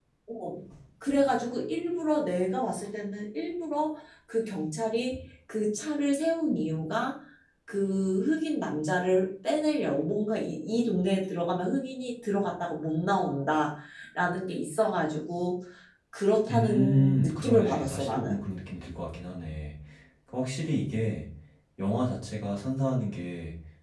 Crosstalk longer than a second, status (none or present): present